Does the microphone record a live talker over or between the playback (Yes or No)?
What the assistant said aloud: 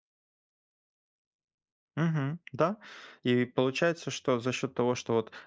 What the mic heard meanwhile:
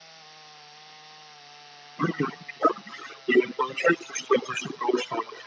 No